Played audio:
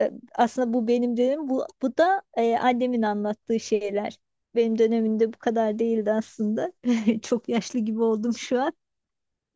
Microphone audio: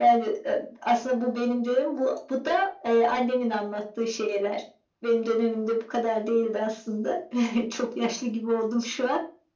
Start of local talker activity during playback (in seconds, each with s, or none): none